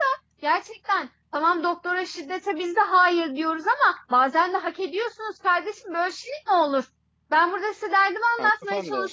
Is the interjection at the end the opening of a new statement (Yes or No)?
No